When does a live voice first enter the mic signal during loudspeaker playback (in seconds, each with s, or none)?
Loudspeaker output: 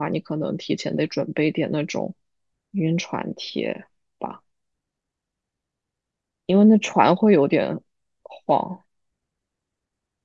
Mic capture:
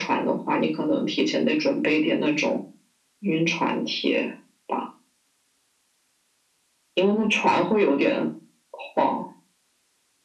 none